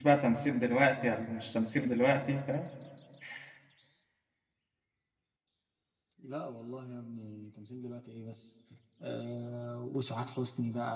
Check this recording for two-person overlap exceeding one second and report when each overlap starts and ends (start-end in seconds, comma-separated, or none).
none